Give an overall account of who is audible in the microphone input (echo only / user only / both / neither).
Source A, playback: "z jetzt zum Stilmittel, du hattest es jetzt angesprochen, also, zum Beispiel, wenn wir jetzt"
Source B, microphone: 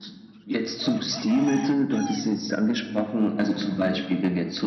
echo only